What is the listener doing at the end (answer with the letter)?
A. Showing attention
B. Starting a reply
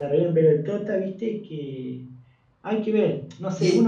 B